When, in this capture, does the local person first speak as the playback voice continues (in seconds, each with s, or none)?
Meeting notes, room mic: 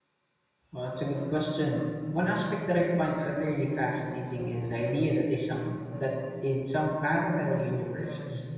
0.7 s